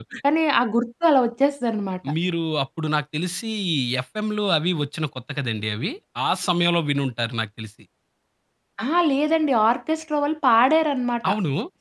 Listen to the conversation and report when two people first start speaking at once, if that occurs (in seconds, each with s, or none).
none